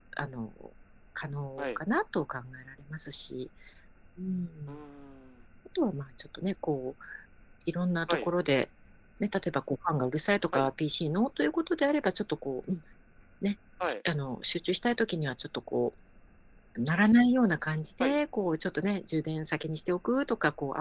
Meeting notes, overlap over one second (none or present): none